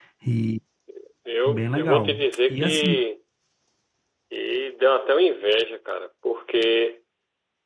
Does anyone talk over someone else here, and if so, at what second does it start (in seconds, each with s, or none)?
1.5 s